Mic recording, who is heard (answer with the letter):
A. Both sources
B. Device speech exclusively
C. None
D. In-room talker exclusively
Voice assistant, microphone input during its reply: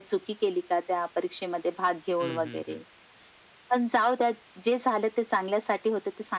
A